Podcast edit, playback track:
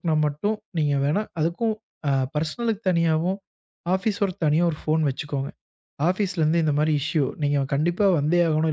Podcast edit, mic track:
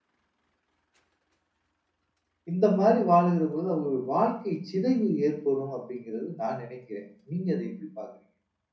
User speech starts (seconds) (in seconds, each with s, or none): 2.5 s